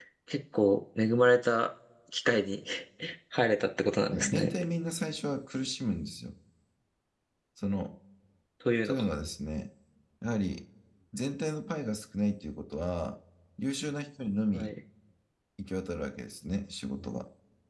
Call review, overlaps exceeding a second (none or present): none